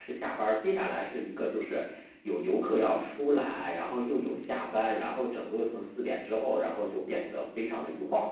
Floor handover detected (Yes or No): Yes